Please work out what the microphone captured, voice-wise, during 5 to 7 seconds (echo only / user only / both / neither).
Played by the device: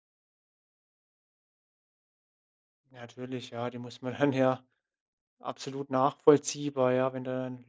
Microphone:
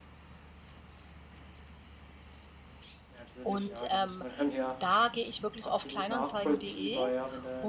both